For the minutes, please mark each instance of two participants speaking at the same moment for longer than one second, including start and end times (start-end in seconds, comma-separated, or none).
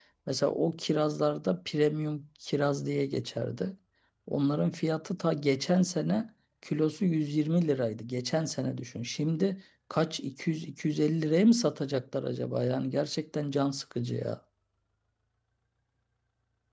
none